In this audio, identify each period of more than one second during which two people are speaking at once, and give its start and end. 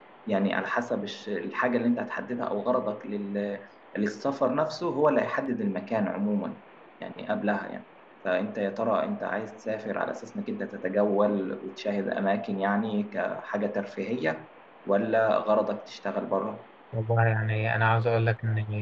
none

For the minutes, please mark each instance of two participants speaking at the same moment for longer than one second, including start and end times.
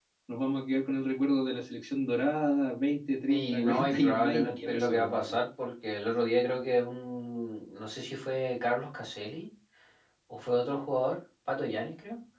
3.3-5.2

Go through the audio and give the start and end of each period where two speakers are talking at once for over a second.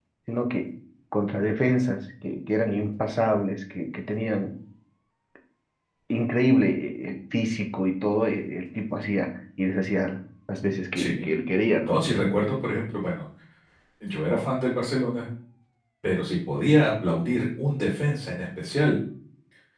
none

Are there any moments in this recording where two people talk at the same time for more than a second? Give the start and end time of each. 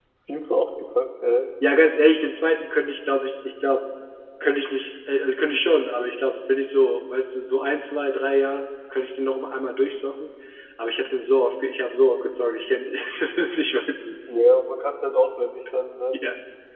none

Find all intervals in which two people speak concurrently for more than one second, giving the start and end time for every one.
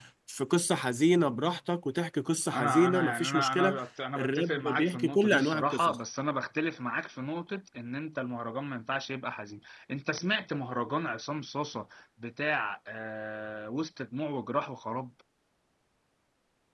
2.5-3.8, 4.2-6.0

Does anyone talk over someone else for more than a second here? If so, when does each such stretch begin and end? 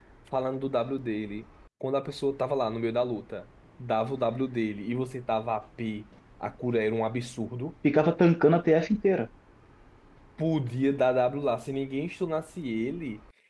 none

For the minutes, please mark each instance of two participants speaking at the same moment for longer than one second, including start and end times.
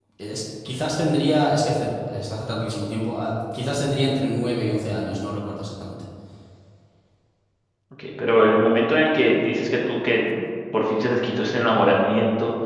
none

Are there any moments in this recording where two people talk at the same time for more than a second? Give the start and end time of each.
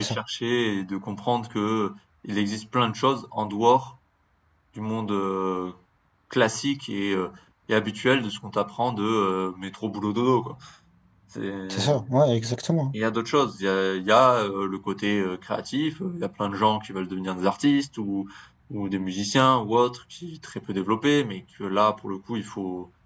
none

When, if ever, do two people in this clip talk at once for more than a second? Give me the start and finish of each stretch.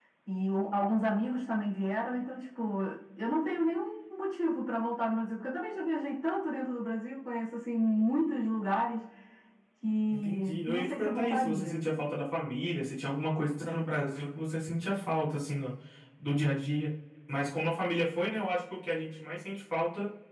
10.1-11.9

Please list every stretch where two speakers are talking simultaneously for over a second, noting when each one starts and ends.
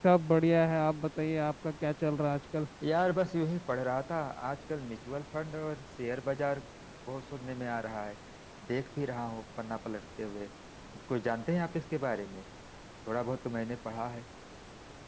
none

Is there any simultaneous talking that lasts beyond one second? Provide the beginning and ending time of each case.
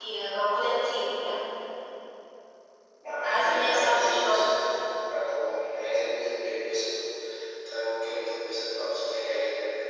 3.2-4.5

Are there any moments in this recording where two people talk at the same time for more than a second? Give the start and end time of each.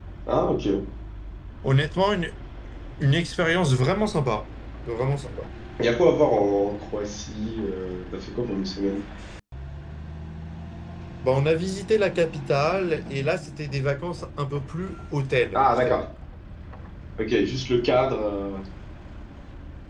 none

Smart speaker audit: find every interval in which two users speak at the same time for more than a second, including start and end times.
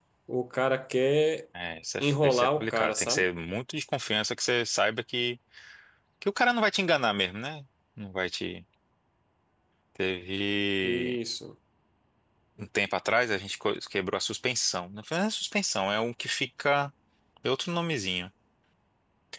2.0-3.2

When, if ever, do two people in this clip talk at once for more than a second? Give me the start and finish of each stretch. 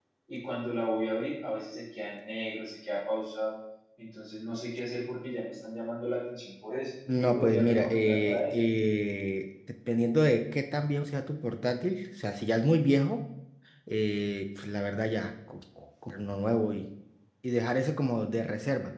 7.1-8.5

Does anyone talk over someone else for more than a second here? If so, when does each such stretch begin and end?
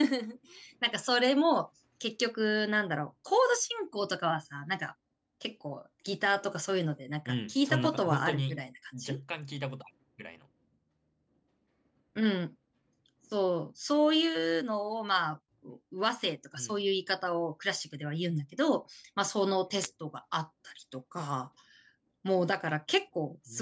7.3-8.6

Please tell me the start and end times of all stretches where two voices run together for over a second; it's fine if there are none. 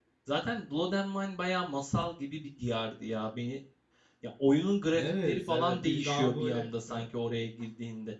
5.0-7.1

